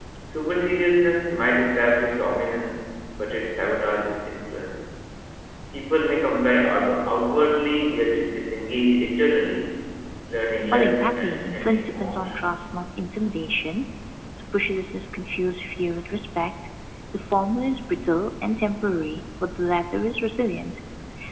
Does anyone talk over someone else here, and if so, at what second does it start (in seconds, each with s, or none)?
10.7 s